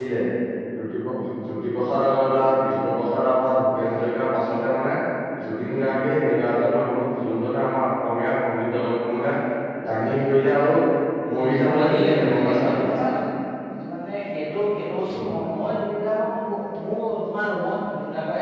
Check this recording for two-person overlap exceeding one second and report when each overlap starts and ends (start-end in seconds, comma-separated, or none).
11.3-12.6